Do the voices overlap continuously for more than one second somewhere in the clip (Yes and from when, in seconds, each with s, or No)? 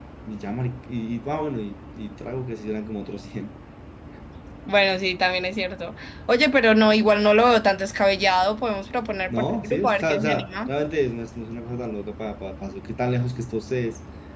Yes, from 9.3 s